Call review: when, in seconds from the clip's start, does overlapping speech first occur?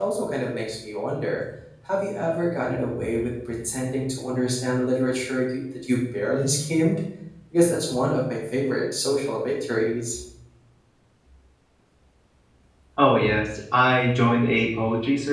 none

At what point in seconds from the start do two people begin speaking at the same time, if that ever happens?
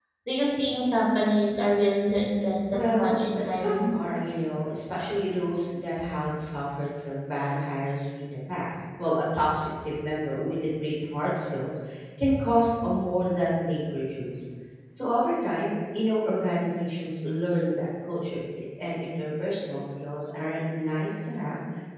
3 s

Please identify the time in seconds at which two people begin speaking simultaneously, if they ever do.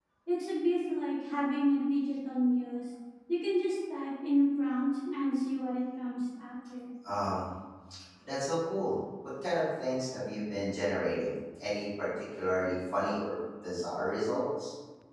none

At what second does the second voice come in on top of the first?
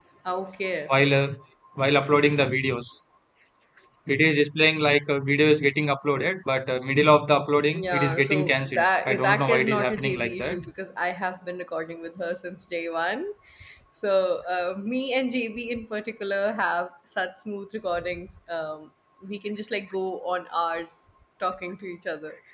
8 s

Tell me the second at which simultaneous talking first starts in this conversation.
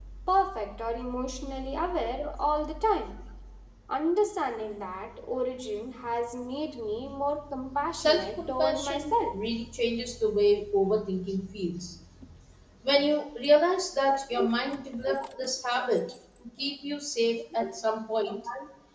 8 s

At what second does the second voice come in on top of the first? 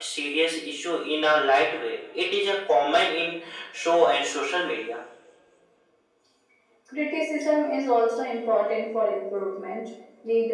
none

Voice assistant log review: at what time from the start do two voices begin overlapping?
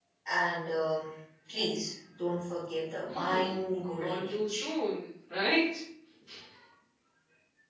3 s

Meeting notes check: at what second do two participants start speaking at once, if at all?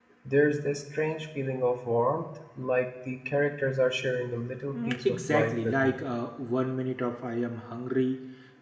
5 s

